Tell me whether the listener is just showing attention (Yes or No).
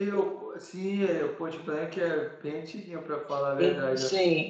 No